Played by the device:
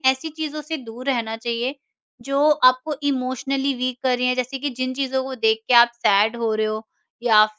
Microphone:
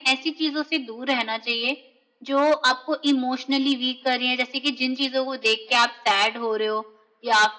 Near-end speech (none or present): none